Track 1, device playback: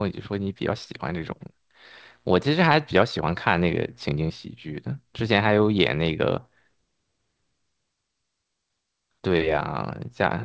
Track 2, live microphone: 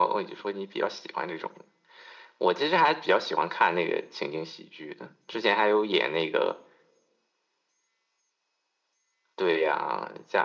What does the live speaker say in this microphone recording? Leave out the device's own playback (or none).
none